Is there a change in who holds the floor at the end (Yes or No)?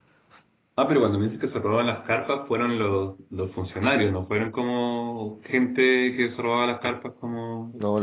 Yes